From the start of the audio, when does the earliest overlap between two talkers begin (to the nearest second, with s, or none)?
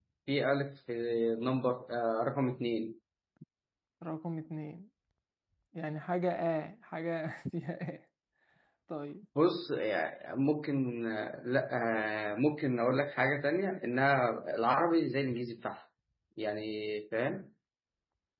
none